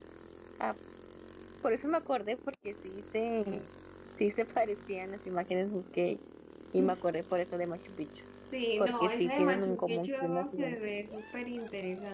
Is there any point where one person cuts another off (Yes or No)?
Yes